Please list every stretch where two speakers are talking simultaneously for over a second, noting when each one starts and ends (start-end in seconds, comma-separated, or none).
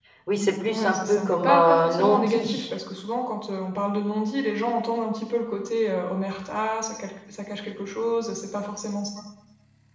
0.7-2.6